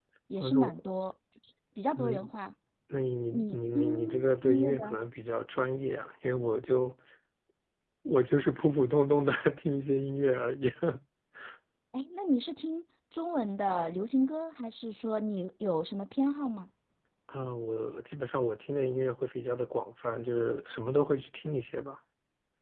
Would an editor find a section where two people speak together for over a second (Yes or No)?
Yes